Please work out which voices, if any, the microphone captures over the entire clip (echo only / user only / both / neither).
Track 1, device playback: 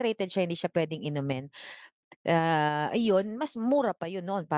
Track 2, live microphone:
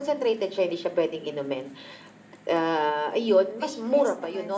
both